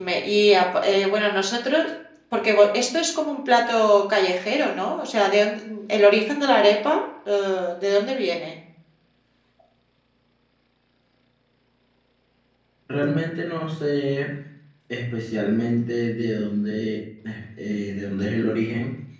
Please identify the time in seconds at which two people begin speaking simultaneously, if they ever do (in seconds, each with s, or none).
none